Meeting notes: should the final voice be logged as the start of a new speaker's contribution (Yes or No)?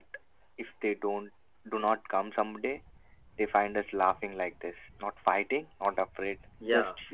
Yes